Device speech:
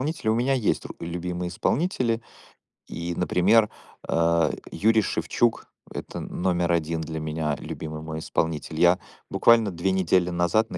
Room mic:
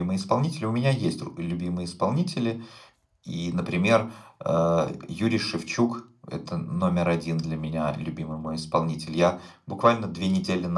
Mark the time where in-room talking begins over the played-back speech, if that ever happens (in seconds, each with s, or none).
none